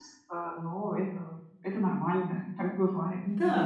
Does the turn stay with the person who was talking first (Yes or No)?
No